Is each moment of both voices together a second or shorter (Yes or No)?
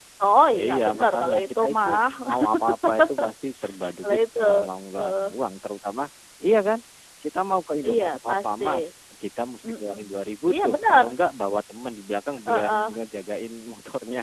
No